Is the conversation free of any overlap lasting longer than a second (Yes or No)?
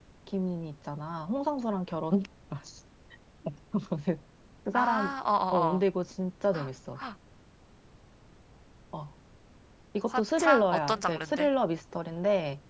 No